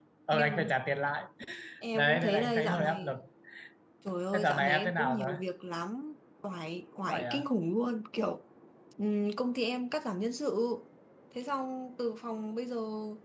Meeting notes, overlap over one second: present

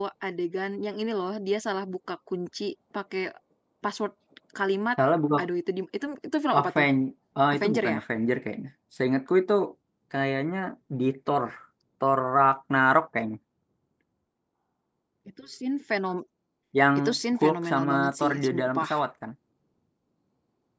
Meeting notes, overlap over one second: present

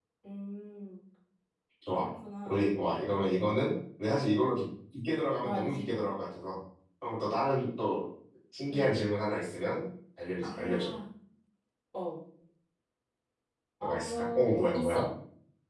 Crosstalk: present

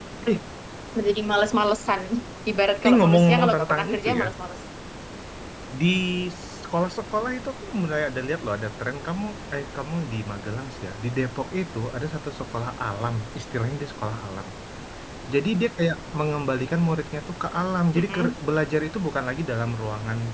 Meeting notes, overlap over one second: present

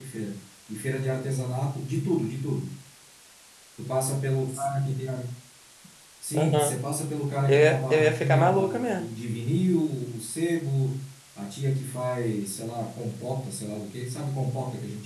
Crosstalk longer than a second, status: present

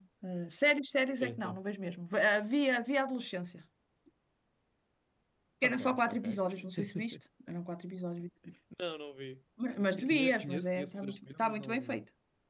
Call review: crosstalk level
present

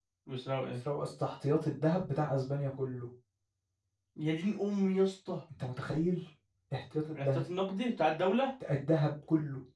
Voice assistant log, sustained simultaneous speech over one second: none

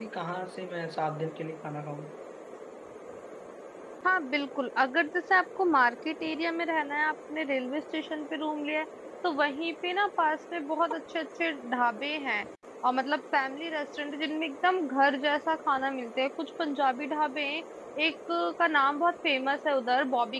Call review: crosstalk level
none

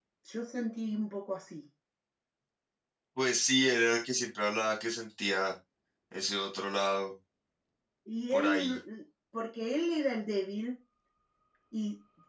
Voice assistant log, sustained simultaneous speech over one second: none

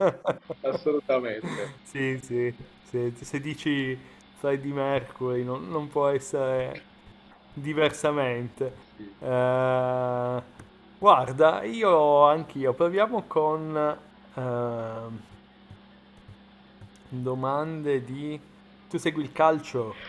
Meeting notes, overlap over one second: none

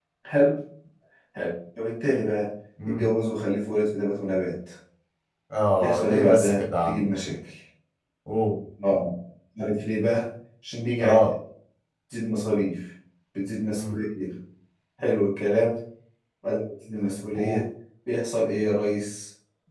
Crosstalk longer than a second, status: present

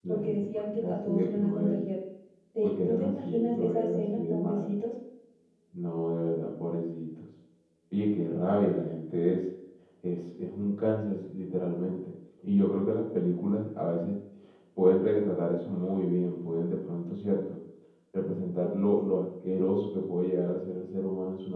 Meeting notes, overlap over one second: present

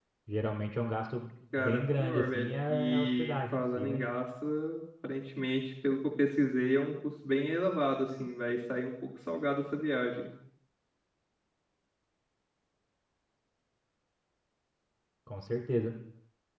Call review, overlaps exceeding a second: present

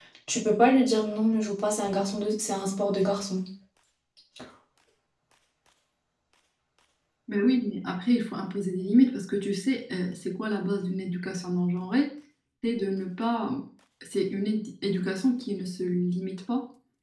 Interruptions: none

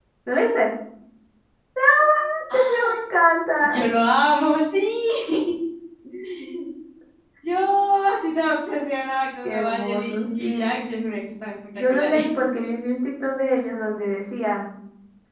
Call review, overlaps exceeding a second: present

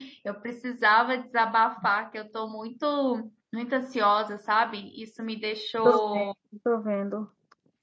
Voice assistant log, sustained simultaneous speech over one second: none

